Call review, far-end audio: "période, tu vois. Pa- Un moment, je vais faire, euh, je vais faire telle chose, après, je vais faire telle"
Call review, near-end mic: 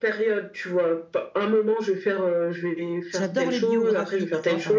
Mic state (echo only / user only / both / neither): both